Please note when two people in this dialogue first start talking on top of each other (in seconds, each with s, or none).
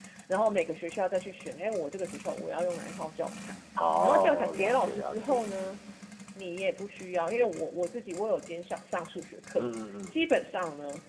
4.0 s